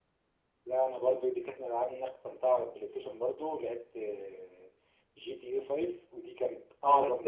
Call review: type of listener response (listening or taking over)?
listening